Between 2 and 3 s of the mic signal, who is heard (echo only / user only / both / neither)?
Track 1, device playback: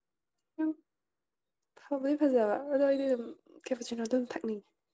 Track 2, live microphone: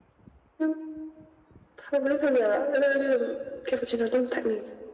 echo only